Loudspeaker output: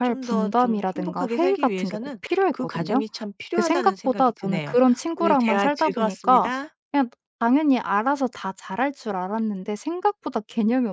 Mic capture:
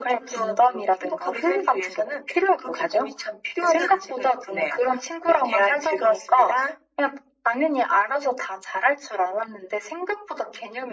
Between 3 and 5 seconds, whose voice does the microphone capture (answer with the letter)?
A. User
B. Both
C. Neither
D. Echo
D